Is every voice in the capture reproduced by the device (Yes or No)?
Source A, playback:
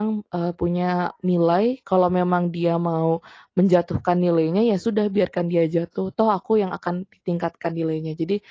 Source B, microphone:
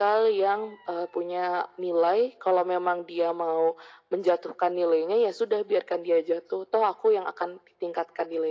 Yes